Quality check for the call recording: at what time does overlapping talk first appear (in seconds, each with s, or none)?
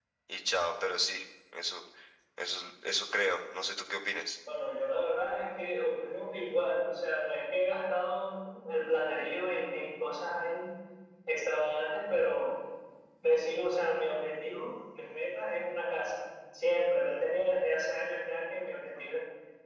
none